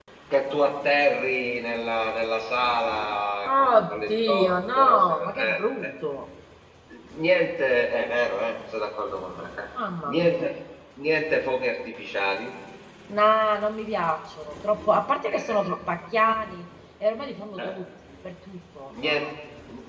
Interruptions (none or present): present